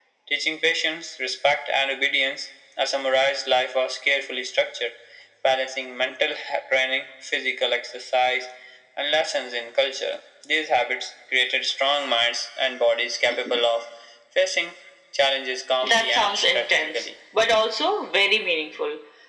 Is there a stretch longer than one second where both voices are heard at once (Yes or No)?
Yes